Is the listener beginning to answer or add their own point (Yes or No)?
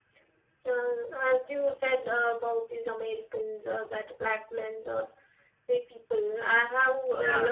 No